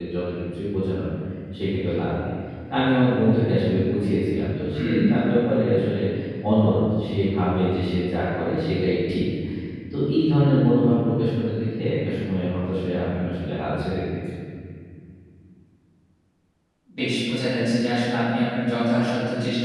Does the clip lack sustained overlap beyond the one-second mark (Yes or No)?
Yes